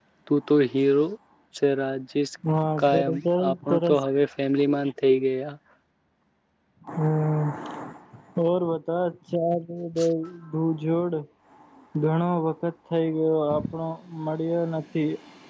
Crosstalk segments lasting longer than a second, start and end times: 2.8-4.0

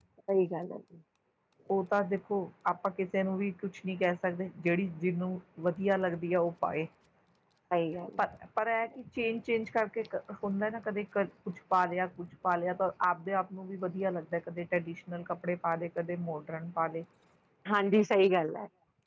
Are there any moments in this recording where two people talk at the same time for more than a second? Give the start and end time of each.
none

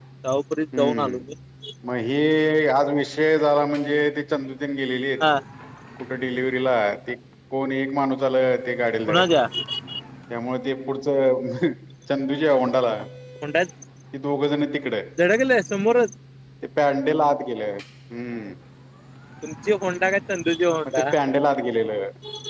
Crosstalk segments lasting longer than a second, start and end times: none

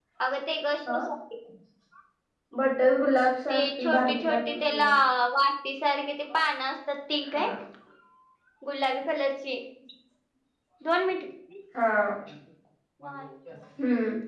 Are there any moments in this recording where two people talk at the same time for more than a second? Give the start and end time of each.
3.5-4.8

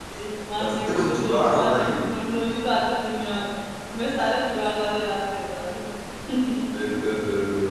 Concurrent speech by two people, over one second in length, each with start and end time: 0.6-2.0

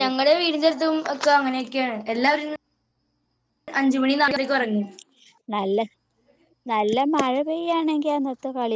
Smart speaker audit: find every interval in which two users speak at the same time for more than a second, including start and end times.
none

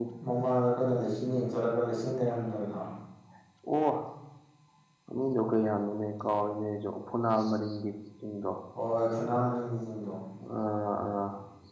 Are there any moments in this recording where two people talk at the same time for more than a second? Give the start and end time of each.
none

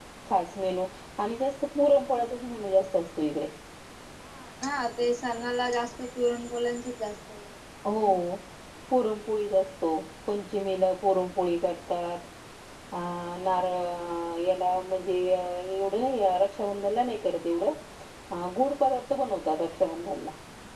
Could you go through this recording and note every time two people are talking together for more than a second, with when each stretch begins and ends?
none

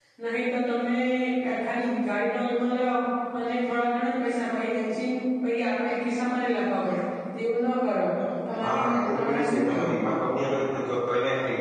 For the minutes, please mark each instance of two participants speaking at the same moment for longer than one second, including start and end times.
8.6-9.9

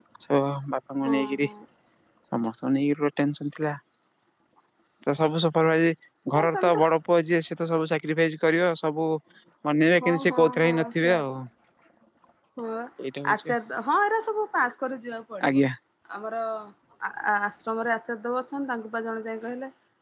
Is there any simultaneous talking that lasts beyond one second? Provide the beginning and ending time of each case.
10.0-11.3

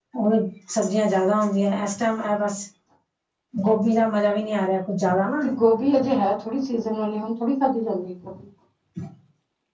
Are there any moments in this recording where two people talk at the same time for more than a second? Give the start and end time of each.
none

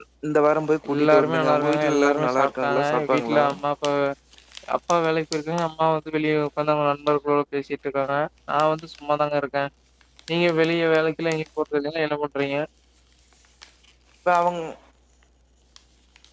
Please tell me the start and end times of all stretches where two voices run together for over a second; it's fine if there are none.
0.9-3.4

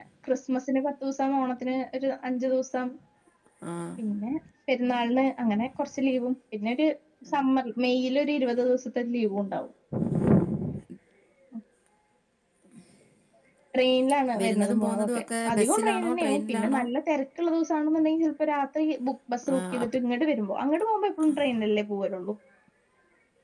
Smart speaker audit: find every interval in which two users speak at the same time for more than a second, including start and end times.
14.4-16.8

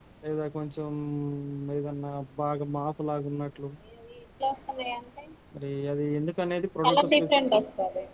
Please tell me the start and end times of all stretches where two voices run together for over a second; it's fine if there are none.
none

